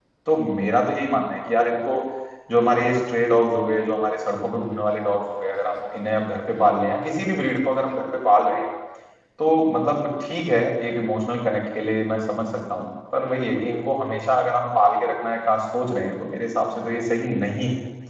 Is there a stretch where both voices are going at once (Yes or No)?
No